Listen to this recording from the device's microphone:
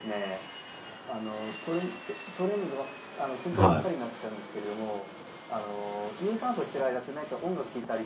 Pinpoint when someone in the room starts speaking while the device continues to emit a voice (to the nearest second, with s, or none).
4 s